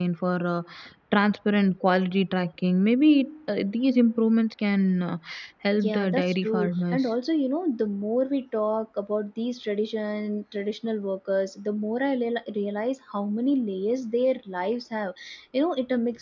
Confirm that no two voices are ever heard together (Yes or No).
No